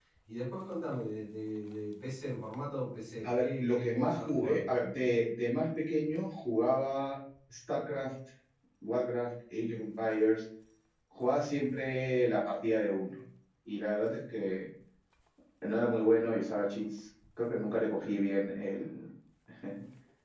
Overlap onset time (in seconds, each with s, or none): 3.2 s